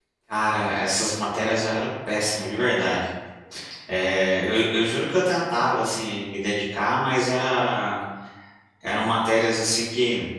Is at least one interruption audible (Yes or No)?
No